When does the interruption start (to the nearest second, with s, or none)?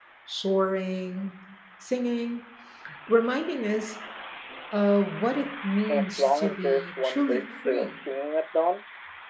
6 s